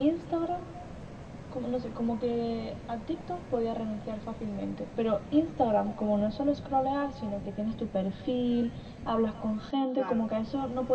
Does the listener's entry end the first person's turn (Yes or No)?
No